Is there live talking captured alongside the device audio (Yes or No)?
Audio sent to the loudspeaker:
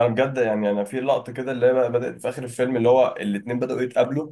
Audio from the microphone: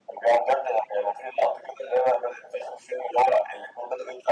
No